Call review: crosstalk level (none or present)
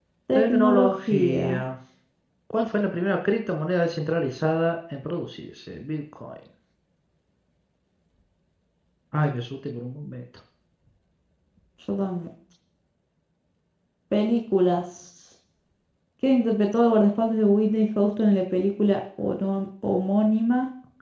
present